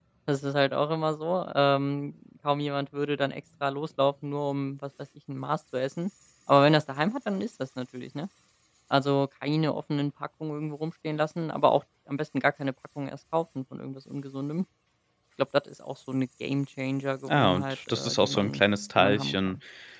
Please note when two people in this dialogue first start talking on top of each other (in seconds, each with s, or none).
17.3 s